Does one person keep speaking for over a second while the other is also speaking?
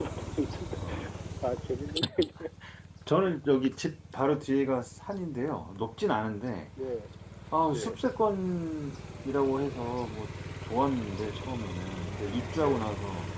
No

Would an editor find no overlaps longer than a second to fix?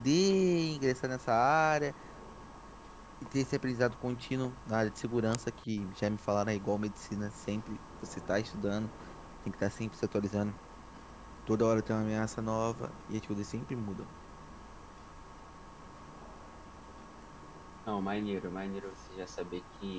Yes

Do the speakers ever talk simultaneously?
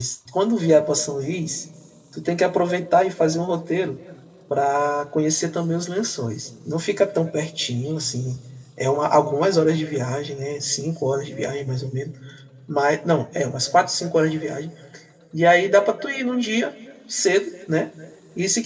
No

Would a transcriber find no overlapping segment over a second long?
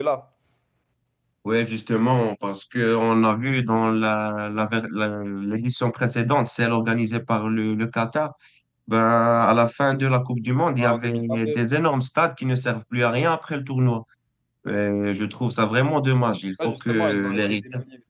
No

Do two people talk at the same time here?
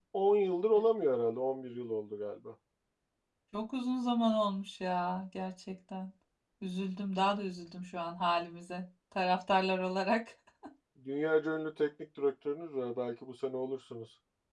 No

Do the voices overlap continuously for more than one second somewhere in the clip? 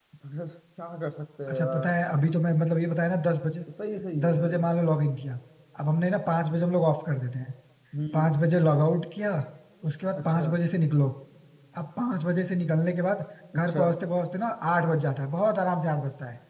No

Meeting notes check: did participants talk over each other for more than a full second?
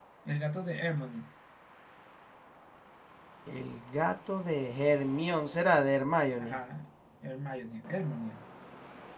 No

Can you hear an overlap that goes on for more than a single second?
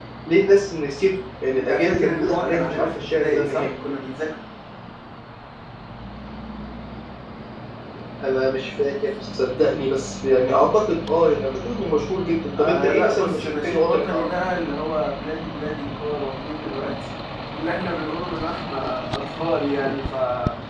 Yes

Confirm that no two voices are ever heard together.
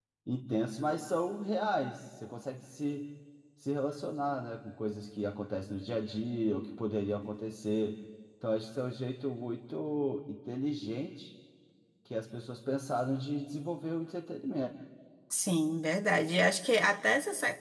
Yes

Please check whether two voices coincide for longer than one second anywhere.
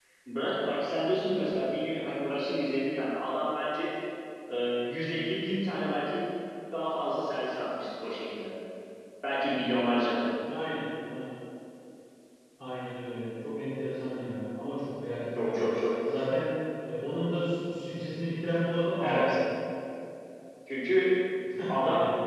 No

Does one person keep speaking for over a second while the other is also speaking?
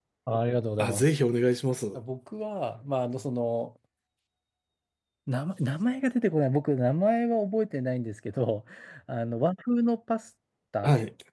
No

